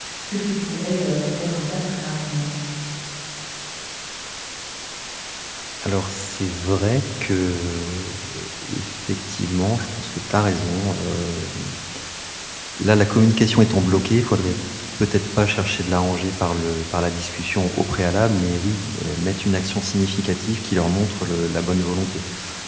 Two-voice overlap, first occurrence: none

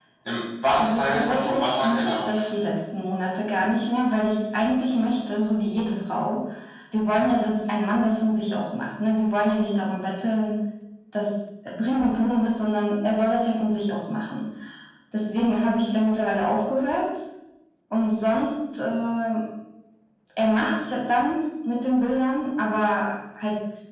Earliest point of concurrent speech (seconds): 1 s

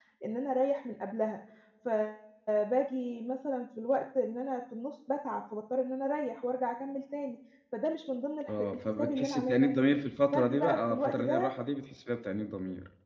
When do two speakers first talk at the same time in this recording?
8 s

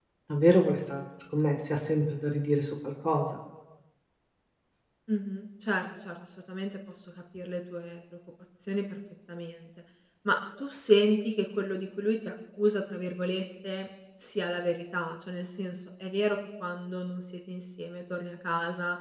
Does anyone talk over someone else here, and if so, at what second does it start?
none

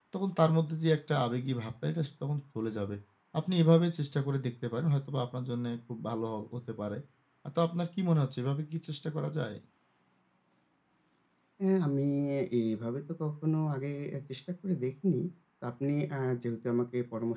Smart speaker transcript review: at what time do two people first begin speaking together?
none

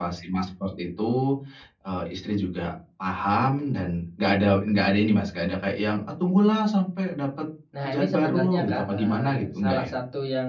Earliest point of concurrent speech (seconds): 8 s

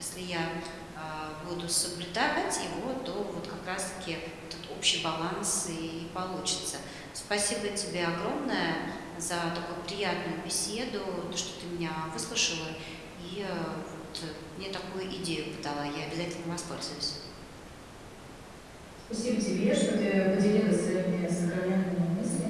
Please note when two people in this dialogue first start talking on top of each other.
none

